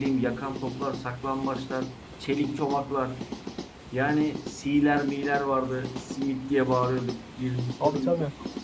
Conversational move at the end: listening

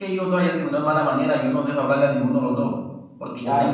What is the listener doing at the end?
listening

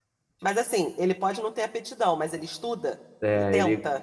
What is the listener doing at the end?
taking over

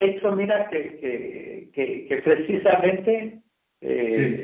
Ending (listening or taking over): listening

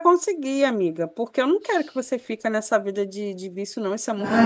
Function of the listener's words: taking over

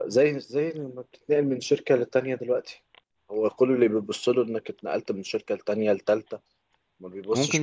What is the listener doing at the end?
taking over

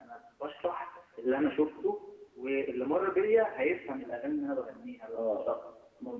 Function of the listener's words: taking over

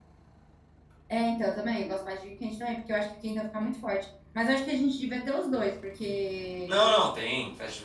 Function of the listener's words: taking over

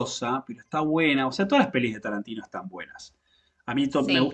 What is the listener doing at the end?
listening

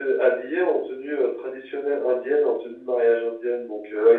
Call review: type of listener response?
listening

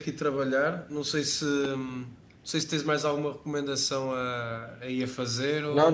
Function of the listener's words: taking over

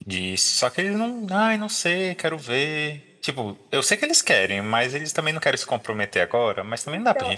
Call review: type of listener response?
taking over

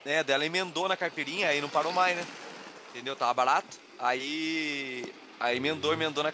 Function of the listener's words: listening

